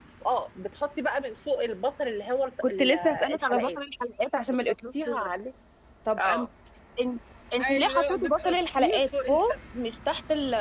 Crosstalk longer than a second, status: present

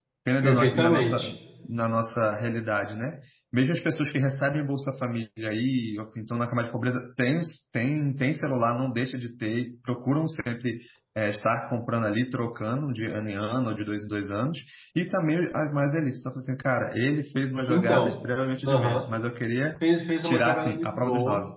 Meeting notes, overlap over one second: present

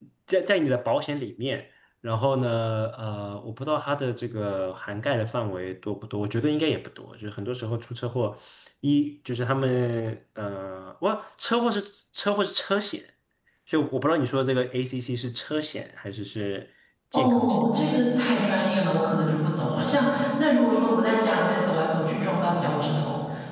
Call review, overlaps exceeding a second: none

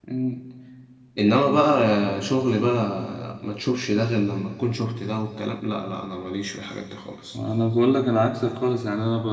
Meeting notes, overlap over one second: none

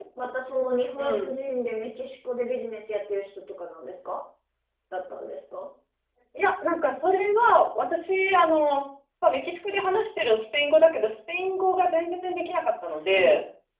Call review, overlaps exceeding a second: none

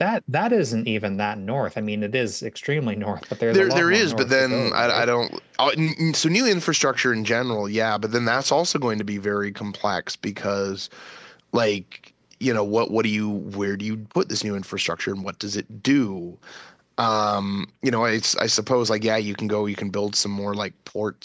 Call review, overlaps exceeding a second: present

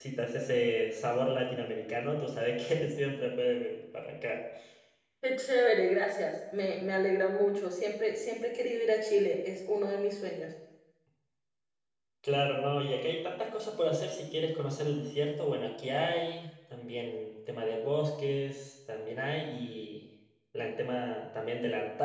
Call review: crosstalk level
none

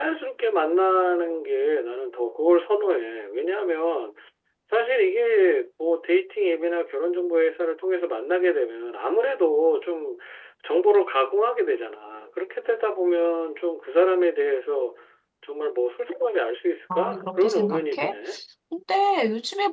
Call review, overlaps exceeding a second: present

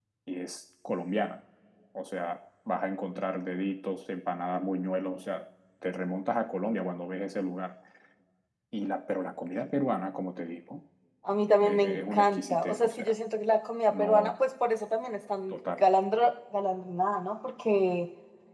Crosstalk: present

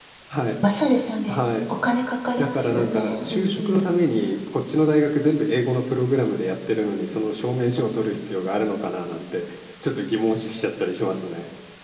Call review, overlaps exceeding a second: present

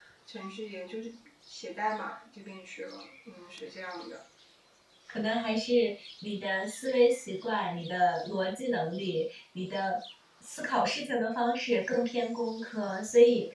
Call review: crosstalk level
none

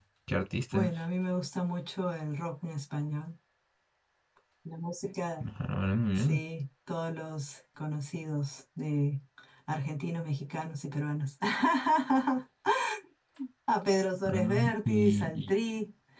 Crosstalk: present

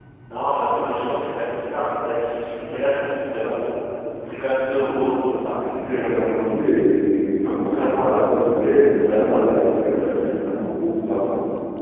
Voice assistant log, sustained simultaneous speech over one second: none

